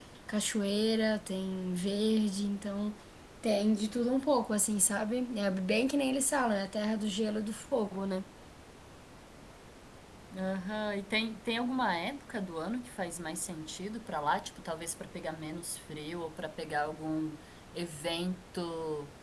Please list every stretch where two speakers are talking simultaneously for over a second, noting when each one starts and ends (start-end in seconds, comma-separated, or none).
none